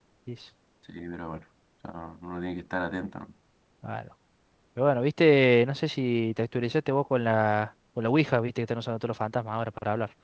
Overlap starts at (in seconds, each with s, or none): none